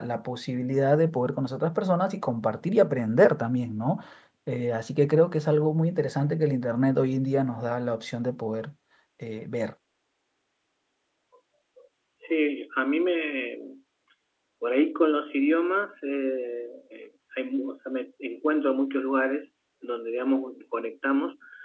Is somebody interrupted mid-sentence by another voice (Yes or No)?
No